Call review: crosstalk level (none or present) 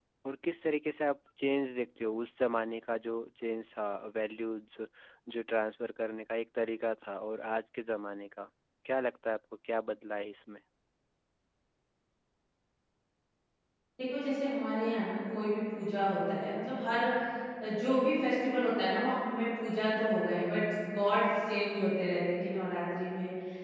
none